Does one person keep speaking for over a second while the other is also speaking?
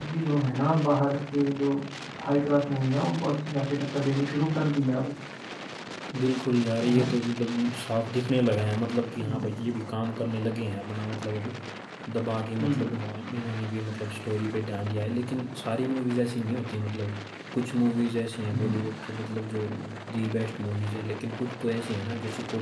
No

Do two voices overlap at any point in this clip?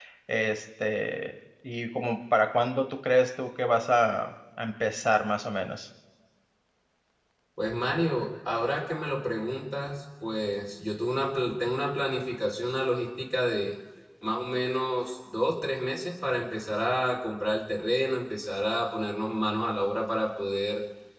No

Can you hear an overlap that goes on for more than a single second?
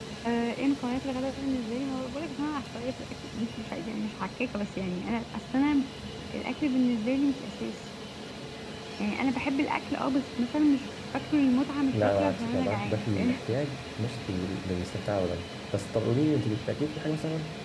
Yes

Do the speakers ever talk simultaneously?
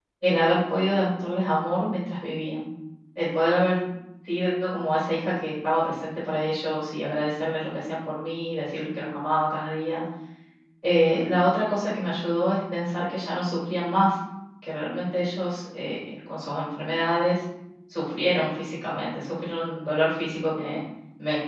No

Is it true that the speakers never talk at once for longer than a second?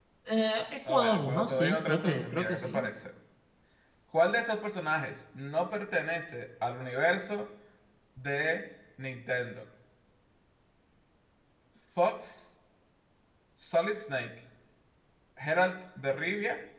No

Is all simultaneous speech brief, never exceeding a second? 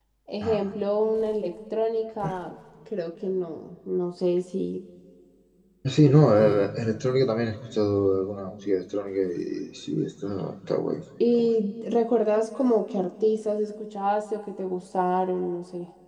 Yes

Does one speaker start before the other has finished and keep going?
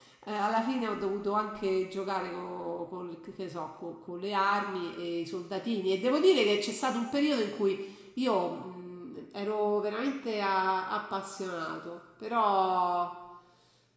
No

